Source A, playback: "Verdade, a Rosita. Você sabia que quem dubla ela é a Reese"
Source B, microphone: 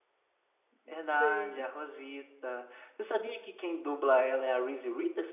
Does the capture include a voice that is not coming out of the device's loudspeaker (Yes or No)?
Yes